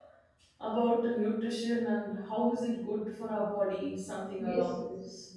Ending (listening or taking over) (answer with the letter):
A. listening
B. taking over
B